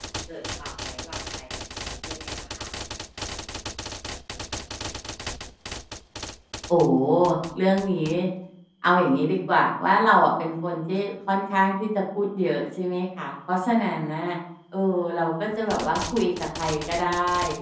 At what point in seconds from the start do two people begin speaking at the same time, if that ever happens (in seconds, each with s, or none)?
none